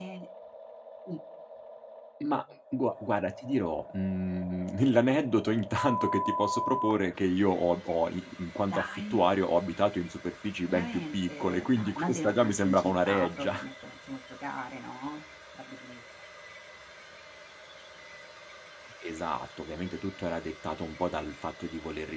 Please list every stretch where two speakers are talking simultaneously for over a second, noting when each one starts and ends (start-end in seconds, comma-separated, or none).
10.7-13.5